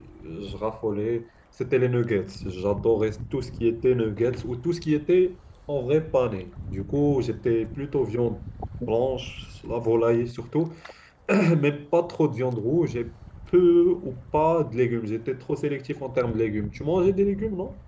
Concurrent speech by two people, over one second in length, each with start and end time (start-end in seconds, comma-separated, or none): none